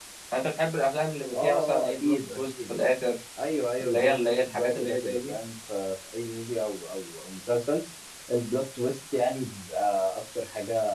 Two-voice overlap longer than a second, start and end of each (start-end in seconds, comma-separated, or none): 1.3-2.7, 3.8-5.3